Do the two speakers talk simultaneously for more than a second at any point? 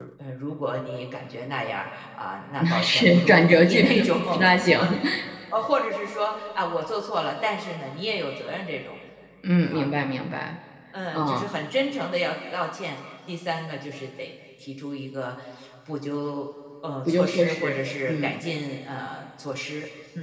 Yes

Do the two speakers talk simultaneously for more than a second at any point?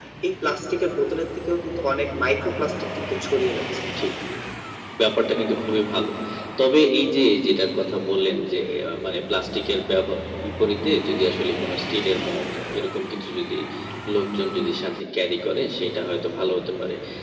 No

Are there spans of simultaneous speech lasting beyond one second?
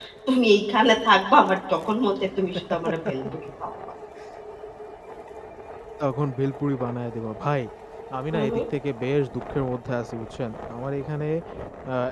No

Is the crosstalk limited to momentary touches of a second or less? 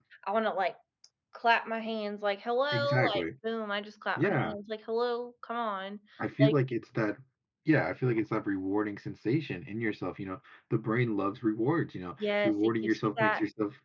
No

